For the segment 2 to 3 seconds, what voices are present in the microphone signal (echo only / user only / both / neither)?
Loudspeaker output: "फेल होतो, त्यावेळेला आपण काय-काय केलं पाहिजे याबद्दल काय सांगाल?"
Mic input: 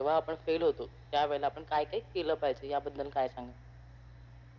echo only